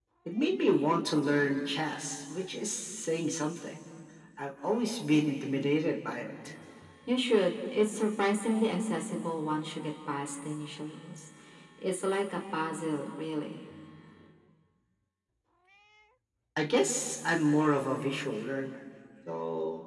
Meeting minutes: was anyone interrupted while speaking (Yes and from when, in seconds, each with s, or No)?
No